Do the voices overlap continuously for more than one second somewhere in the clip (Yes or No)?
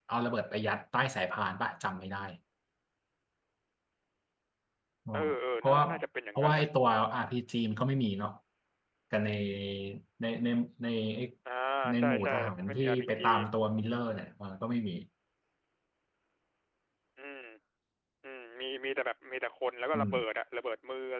Yes